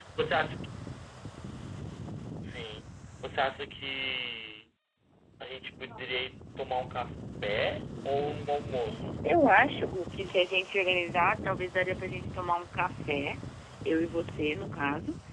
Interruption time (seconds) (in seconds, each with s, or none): none